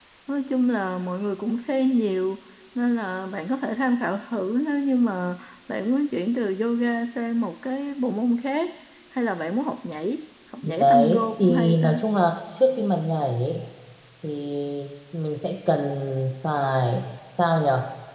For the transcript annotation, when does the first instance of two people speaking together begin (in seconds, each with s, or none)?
10.6 s